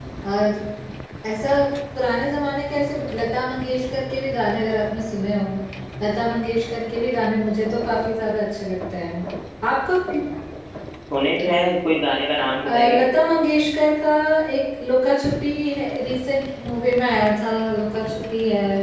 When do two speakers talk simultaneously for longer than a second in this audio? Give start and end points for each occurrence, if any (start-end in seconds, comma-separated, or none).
none